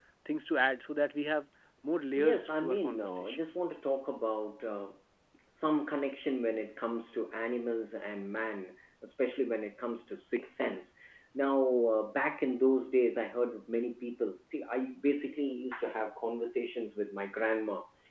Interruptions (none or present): present